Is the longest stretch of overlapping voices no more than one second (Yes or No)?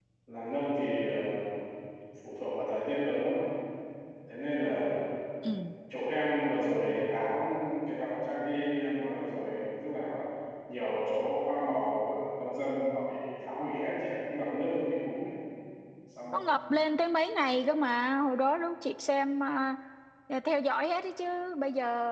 Yes